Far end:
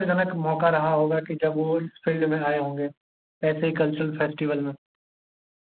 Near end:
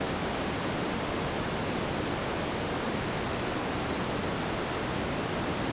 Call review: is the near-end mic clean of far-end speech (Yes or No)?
Yes